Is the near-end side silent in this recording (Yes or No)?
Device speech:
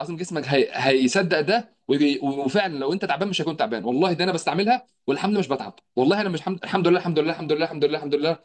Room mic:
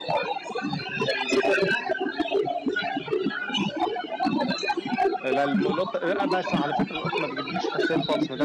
No